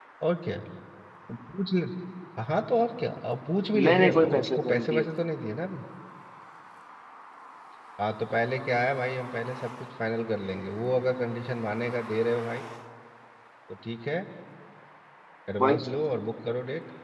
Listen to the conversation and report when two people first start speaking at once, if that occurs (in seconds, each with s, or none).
3.8 s